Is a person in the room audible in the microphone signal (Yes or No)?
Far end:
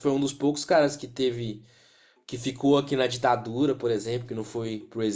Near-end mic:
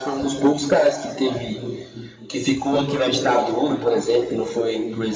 No